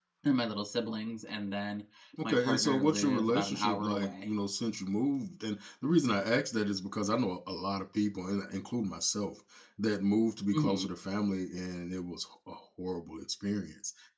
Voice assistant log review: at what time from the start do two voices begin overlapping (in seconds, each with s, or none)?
2.2 s